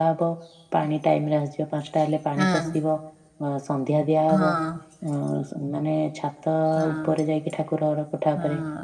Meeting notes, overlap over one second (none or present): none